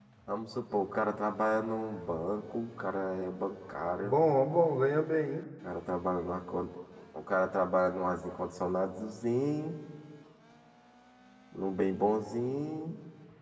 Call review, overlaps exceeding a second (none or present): none